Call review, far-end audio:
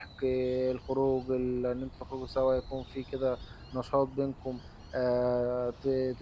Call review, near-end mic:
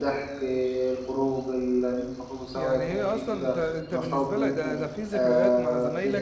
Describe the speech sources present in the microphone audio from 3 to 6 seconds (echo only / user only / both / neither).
both